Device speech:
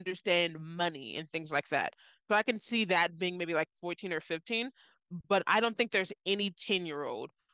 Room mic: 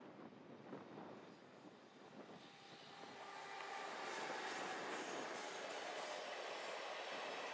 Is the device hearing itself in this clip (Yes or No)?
No